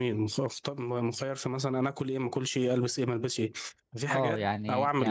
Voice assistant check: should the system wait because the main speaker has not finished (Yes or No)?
No